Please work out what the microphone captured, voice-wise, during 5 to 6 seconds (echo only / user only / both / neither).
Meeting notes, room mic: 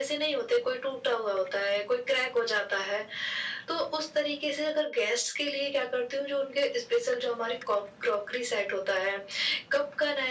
echo only